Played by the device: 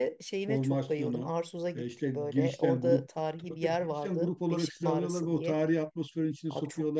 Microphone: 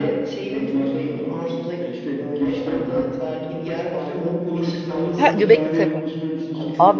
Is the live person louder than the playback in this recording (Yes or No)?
Yes